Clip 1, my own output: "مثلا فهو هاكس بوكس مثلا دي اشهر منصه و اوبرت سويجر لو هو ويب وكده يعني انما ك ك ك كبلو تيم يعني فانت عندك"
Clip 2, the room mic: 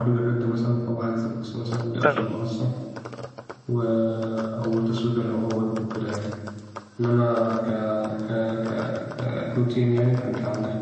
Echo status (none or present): present